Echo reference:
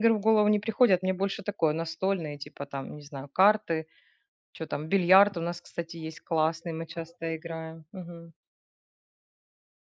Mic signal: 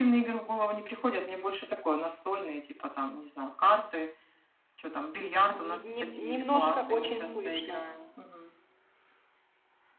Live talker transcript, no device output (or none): Там не не немножко очень слышно.